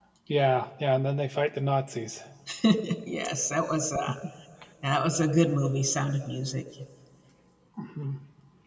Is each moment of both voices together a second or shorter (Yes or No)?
Yes